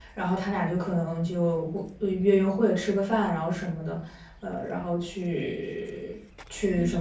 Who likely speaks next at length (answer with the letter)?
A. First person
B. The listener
B